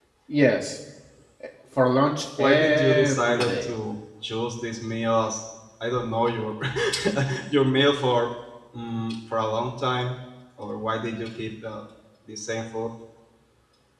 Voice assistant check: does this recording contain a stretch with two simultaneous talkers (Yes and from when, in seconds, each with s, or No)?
Yes, from 2.4 s